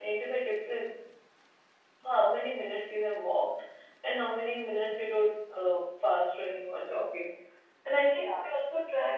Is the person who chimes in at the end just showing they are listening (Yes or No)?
Yes